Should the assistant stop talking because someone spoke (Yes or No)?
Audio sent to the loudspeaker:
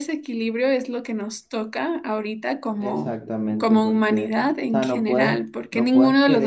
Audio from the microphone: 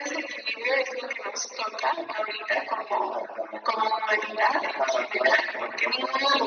No